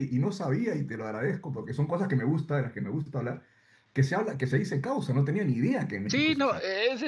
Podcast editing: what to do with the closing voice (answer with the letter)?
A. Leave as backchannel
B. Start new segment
B